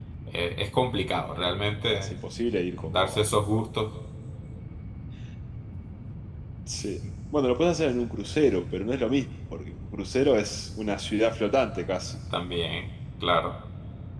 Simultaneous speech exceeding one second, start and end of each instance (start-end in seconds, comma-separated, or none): none